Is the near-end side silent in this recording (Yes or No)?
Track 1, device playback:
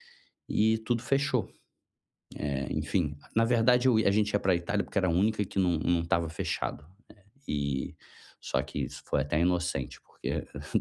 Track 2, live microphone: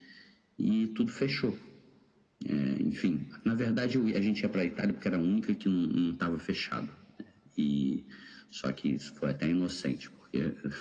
Yes